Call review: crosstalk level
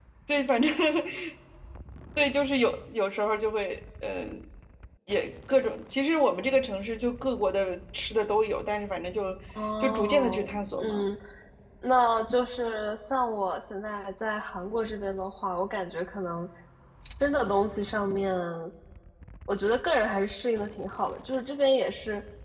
present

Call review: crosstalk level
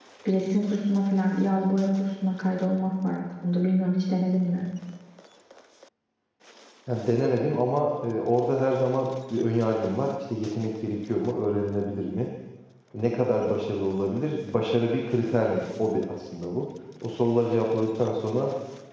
none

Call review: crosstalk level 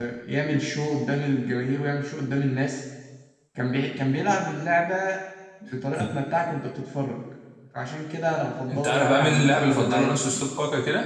present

